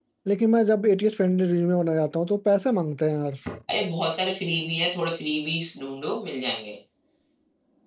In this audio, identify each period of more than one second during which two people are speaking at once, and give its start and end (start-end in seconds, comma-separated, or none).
none